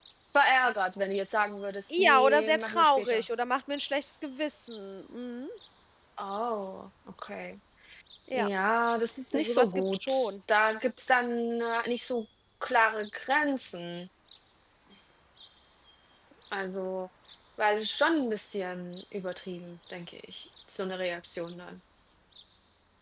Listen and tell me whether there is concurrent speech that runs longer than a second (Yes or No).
Yes